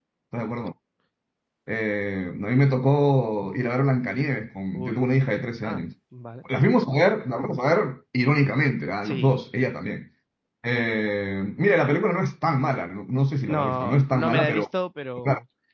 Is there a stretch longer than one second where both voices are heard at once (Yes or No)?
Yes